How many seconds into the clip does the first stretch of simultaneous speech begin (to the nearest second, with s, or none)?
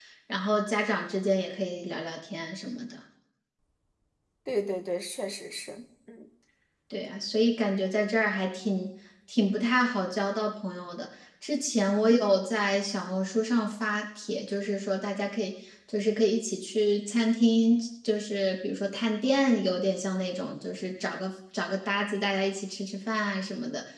none